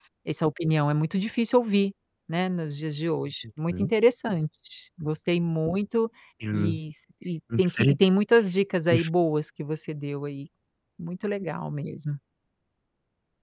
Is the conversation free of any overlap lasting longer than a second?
Yes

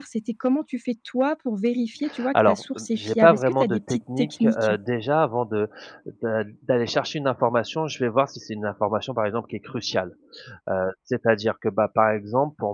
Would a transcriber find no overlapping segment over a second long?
No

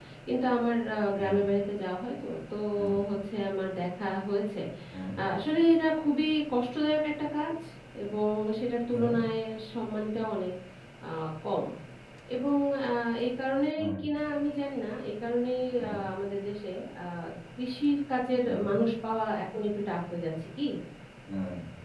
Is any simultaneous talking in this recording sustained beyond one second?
No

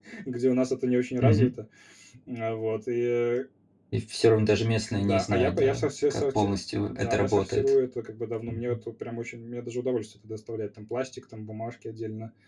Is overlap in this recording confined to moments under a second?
No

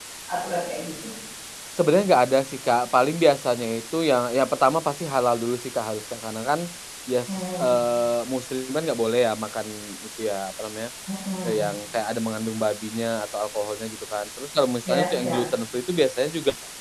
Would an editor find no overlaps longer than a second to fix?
Yes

